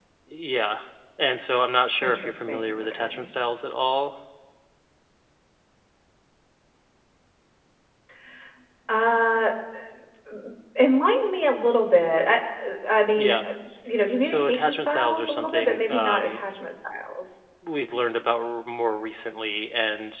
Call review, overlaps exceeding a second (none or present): present